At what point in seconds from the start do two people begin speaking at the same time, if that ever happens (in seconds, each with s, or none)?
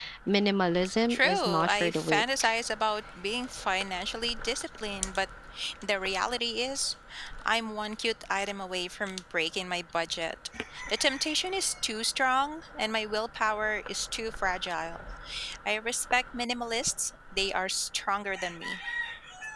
1.1 s